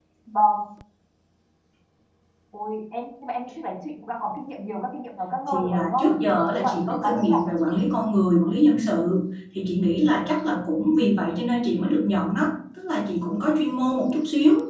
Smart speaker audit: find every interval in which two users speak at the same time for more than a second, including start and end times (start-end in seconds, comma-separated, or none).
5.5-7.7